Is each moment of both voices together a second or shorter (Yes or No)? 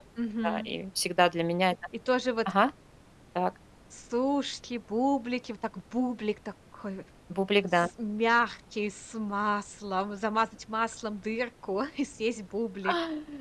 Yes